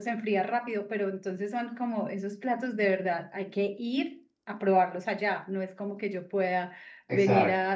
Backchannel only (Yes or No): Yes